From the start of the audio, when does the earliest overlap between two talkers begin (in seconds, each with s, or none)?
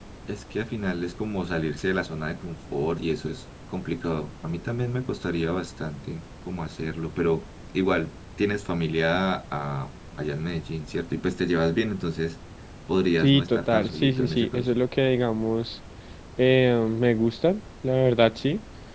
13.2 s